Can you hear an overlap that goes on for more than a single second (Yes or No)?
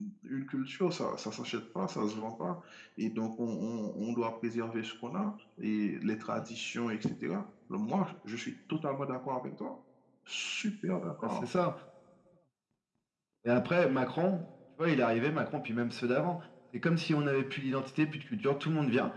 No